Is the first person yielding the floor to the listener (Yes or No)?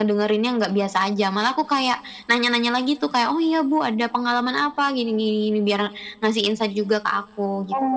Yes